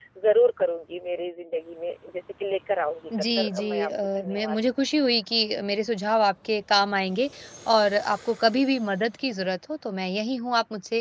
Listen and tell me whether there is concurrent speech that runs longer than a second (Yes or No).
Yes